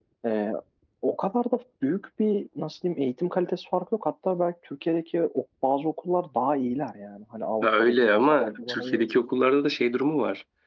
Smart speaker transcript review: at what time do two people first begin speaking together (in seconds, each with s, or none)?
7.6 s